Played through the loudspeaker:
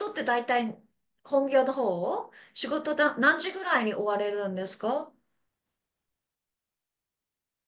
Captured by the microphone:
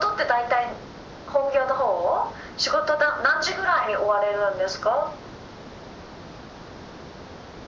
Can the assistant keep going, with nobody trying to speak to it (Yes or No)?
Yes